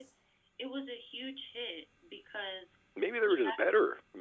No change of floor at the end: No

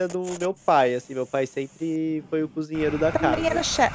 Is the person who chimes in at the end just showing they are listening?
No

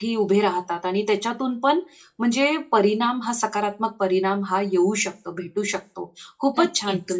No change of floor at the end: Yes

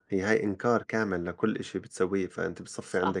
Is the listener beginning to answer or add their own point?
Yes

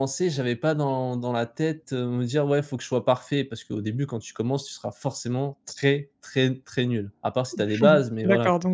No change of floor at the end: No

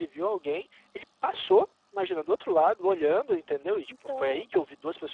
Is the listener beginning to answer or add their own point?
No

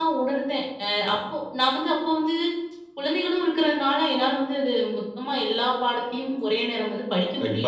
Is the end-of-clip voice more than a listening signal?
Yes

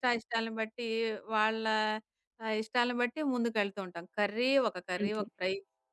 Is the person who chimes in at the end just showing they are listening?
Yes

